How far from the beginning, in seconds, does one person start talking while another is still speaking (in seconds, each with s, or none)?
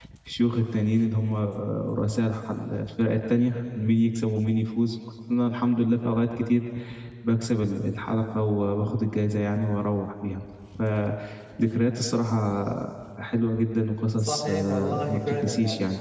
14.1 s